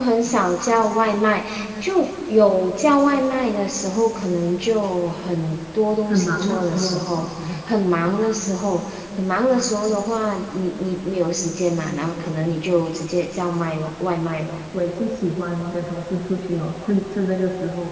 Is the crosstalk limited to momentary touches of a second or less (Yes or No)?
No